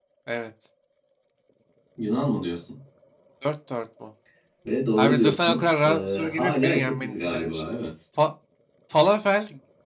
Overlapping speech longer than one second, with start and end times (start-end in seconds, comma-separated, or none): 5.0-7.7